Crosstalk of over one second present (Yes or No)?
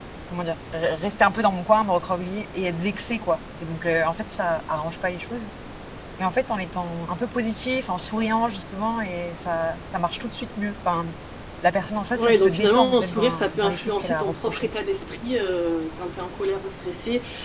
Yes